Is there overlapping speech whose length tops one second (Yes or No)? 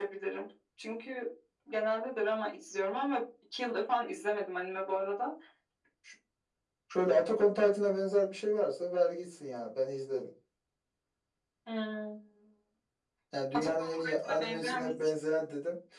Yes